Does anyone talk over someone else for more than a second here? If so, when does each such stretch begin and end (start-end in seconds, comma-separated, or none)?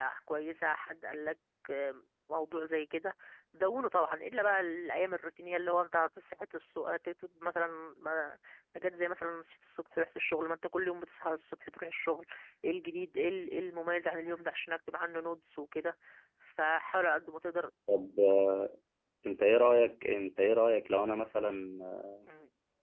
none